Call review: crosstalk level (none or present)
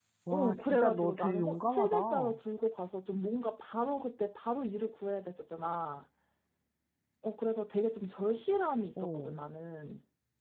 present